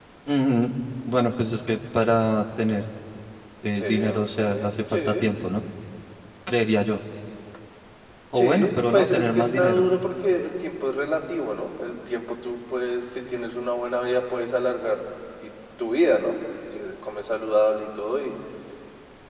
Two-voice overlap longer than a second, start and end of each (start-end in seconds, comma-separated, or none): 3.8-5.3, 8.3-9.8